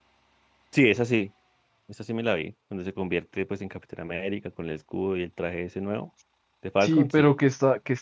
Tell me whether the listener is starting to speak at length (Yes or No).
Yes